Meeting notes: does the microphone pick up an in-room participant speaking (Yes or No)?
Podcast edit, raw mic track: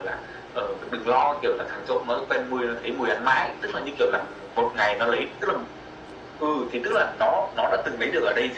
No